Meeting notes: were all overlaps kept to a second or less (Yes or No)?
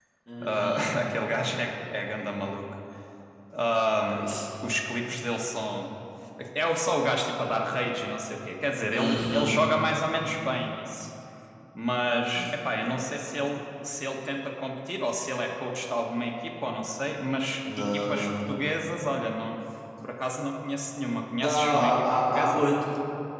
No